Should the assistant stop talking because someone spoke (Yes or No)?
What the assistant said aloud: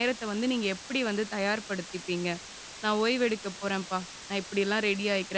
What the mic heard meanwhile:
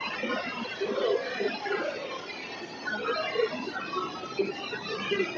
No